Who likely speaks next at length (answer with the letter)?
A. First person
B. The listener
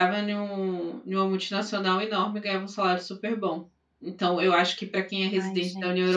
A